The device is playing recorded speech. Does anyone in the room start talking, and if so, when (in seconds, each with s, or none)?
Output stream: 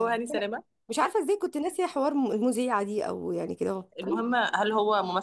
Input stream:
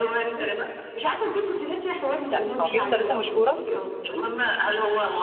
2.3 s